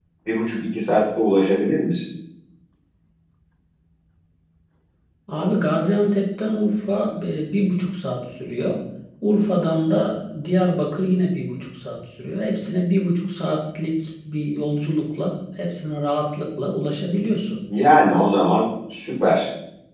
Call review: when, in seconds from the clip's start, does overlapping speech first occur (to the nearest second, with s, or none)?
none